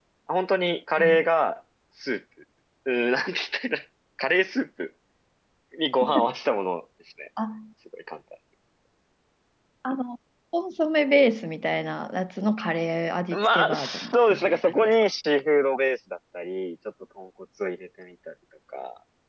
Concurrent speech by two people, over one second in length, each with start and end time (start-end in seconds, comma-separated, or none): 13.3-15.0